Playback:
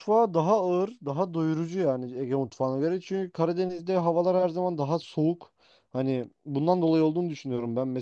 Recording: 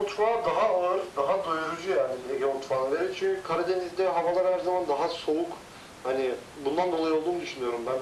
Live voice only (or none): none